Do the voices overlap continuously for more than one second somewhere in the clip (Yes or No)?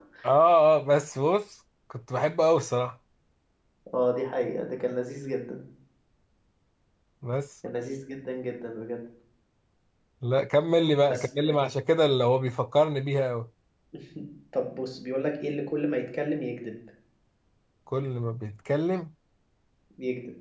No